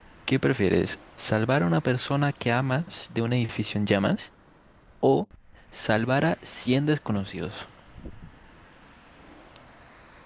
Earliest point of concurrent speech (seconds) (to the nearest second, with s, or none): none